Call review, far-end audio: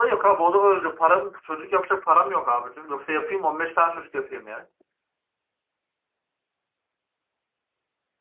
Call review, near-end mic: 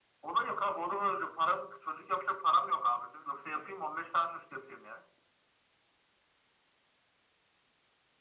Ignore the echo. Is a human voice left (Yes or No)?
No